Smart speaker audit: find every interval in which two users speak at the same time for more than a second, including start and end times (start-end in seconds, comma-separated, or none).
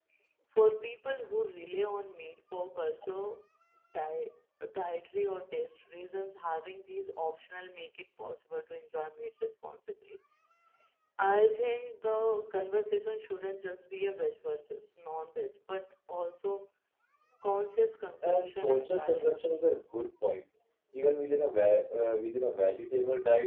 18.2-19.5